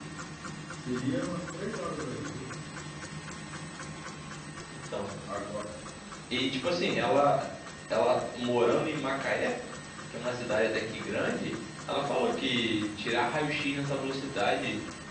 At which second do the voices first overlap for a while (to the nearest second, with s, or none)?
none